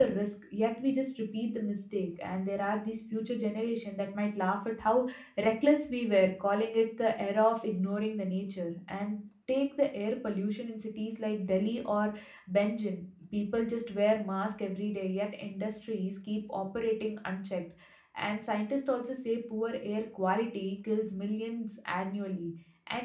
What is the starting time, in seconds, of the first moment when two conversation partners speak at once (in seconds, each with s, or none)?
none